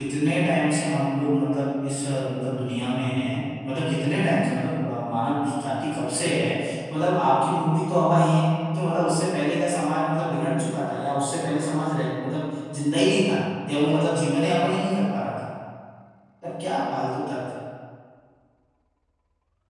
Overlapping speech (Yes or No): No